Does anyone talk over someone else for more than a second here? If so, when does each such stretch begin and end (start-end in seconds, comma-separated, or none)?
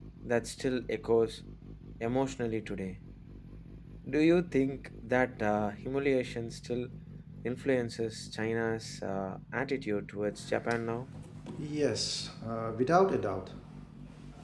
none